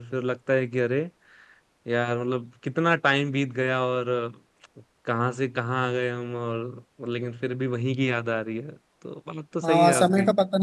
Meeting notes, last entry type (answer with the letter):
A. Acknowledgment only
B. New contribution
B